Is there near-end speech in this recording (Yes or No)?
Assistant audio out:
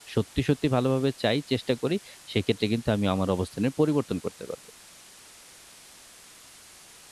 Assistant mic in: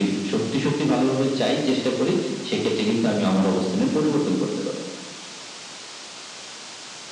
No